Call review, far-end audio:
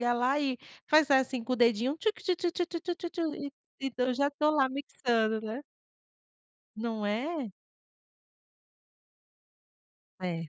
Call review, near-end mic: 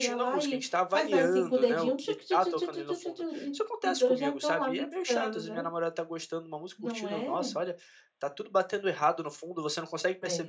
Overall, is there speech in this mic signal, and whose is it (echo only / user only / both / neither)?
both